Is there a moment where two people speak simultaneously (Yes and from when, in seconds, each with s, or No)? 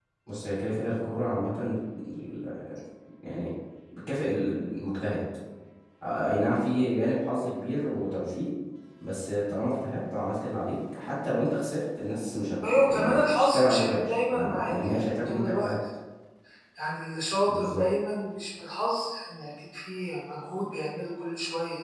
Yes, from 12.7 s